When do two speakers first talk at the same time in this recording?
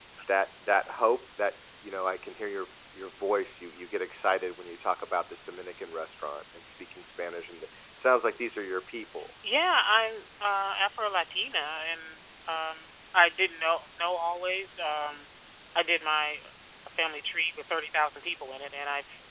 none

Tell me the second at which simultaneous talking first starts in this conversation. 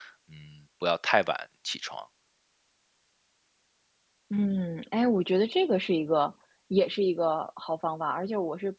none

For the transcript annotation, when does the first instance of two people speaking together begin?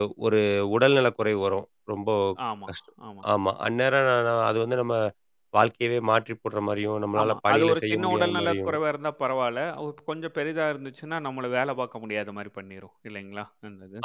7 s

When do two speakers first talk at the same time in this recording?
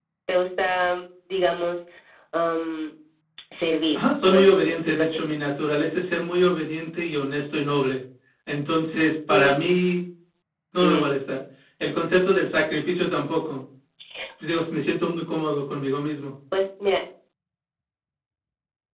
4 s

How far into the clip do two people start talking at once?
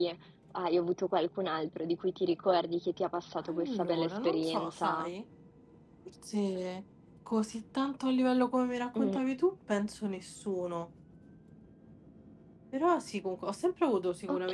3 s

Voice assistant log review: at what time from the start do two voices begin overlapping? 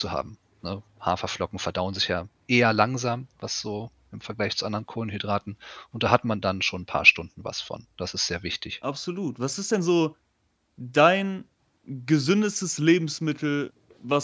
none

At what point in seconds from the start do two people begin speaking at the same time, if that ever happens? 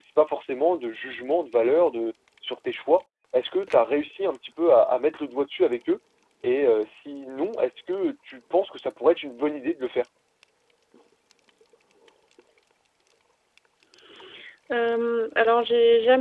none

